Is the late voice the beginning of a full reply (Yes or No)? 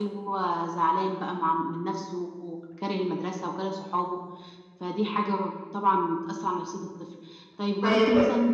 No